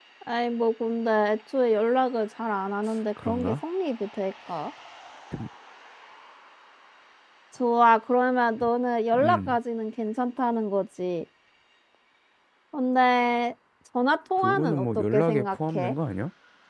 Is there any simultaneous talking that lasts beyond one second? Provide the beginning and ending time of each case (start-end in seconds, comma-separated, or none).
14.4-15.9